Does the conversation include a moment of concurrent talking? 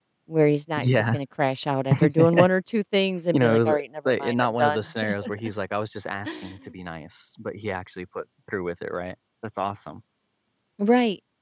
Yes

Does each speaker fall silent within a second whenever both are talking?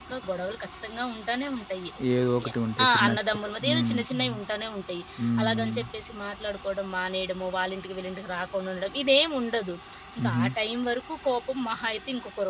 No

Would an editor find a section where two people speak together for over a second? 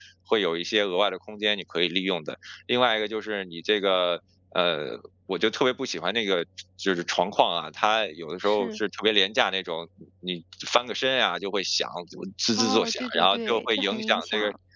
Yes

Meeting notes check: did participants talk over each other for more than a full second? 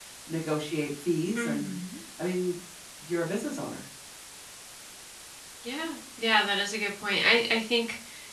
No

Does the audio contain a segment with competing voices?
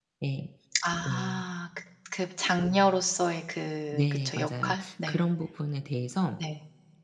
Yes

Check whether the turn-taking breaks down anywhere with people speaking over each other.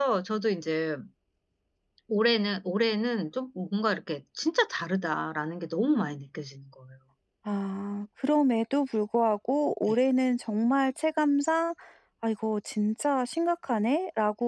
No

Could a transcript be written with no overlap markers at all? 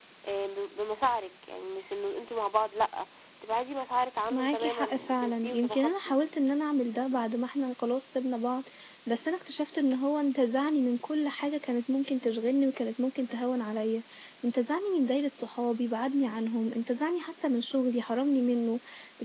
No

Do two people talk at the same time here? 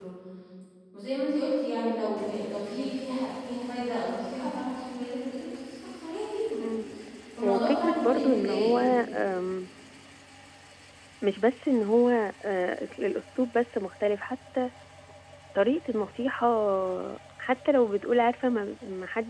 Yes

